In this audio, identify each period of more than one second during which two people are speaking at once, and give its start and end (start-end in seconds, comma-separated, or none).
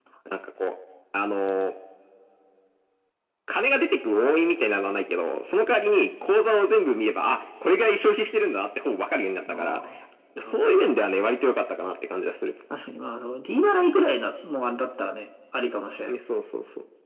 none